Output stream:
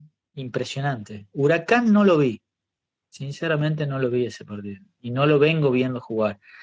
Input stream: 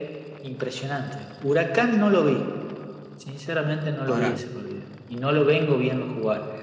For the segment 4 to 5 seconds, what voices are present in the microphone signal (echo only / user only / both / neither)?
both